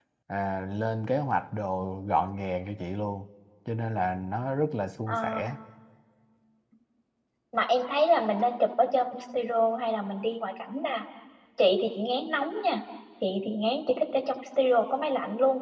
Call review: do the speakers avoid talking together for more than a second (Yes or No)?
Yes